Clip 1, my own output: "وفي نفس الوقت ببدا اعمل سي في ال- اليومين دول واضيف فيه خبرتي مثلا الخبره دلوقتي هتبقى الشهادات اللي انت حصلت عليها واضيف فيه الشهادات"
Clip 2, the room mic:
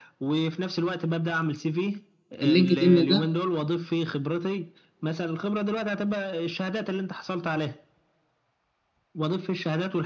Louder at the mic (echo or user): user